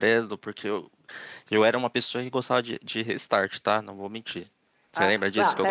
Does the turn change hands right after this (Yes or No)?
Yes